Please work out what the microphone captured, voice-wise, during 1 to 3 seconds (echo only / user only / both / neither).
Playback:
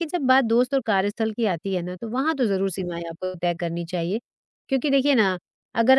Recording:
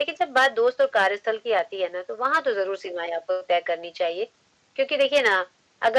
echo only